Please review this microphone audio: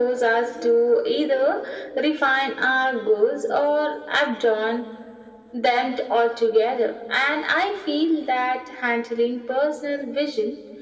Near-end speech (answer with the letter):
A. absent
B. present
A